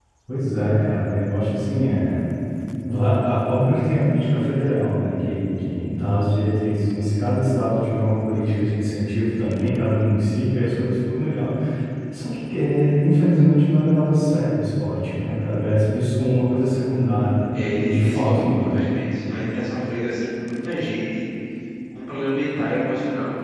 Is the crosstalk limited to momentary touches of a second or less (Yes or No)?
No